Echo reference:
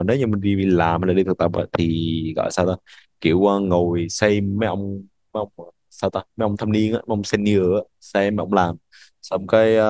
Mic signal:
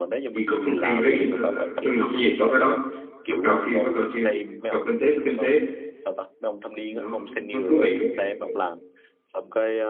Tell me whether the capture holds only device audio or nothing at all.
No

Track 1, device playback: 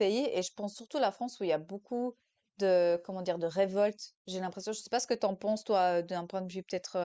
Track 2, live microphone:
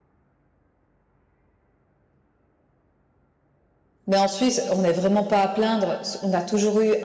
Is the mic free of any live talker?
No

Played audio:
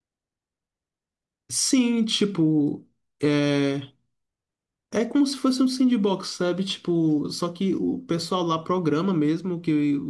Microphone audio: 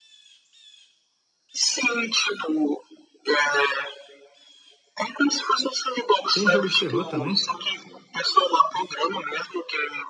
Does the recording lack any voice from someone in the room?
No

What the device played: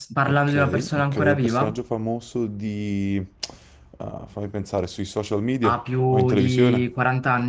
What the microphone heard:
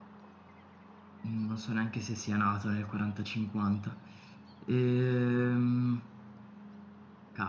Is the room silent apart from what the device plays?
No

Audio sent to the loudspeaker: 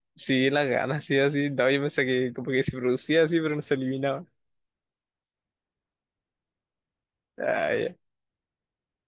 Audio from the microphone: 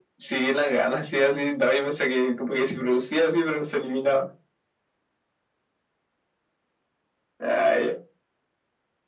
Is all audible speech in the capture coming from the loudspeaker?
Yes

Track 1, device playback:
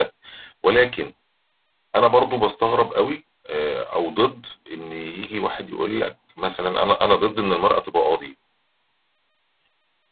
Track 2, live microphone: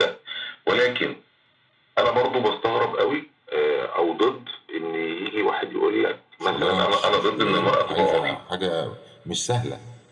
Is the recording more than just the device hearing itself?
Yes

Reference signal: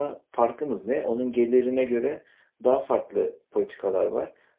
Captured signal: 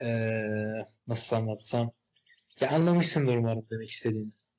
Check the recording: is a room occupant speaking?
Yes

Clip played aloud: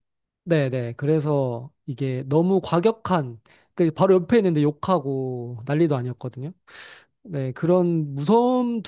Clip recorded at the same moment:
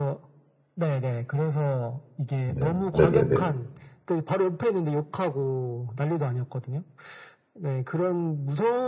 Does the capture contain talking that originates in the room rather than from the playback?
Yes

